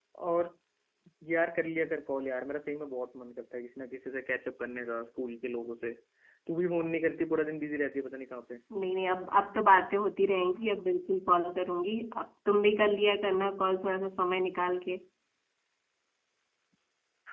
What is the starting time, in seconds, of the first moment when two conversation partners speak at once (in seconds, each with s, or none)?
none